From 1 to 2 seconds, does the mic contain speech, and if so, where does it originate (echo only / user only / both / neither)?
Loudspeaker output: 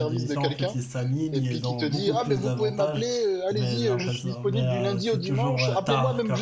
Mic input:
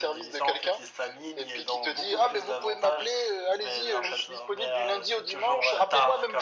echo only